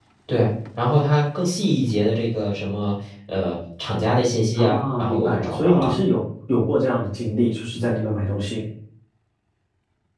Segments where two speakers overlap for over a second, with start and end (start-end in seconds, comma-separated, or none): 4.6-6.0